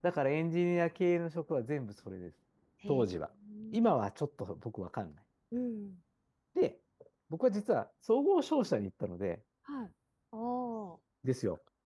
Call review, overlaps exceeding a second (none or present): none